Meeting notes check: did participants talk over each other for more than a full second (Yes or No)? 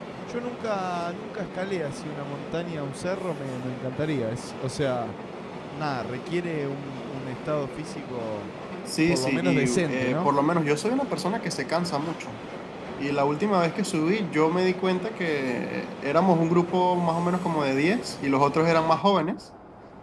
Yes